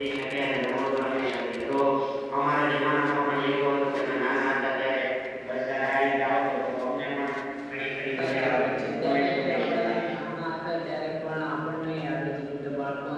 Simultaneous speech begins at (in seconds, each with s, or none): 8.2 s